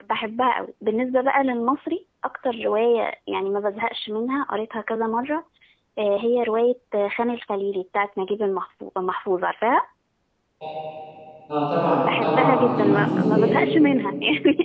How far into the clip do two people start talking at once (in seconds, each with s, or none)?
12.0 s